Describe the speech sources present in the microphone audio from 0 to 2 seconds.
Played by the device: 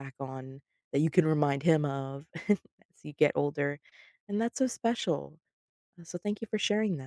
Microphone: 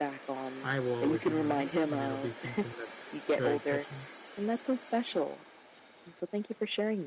both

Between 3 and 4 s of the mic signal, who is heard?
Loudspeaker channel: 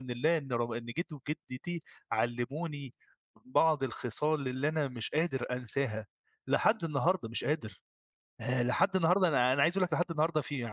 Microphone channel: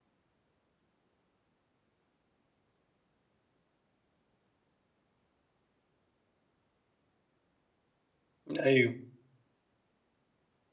neither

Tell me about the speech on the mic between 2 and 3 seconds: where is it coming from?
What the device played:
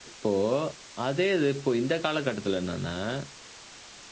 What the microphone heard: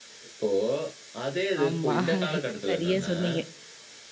both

